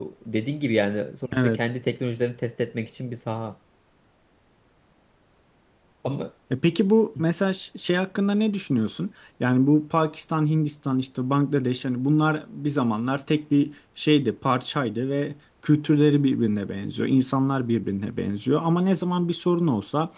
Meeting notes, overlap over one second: none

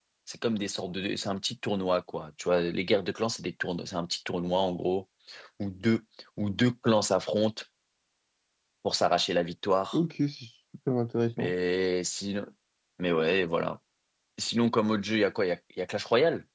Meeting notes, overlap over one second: none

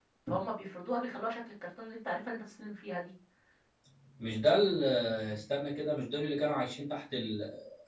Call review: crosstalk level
none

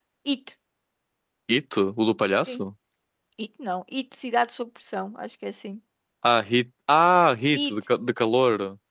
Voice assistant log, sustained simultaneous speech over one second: none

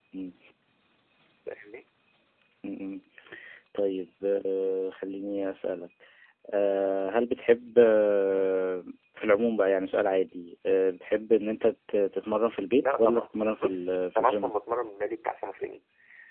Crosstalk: present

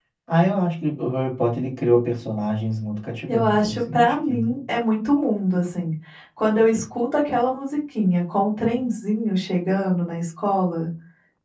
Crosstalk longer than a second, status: present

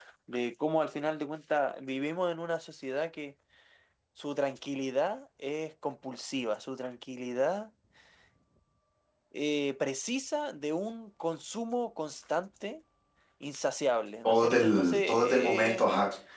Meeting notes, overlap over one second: present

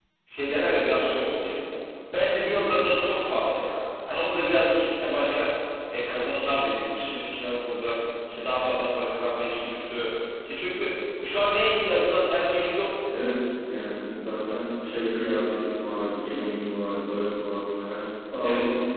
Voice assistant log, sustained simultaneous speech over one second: none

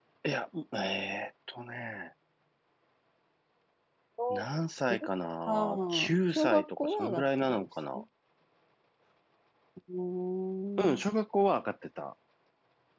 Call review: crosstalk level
present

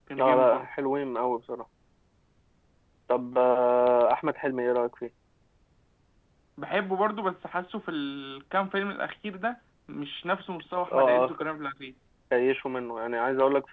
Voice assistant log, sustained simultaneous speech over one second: none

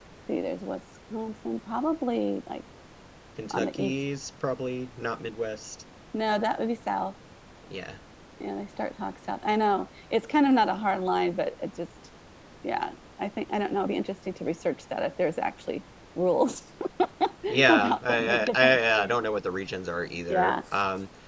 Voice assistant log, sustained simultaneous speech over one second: present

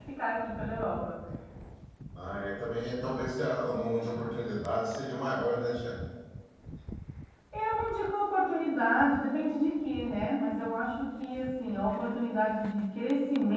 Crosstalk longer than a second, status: none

